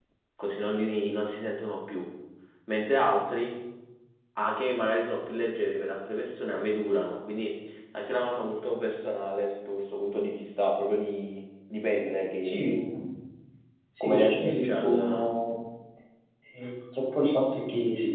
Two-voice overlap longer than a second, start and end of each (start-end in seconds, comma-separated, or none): 14.0-15.3